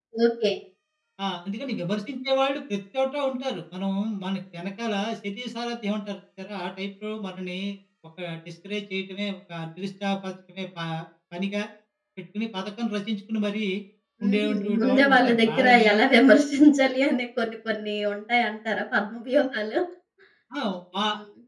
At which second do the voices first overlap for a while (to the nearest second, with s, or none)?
14 s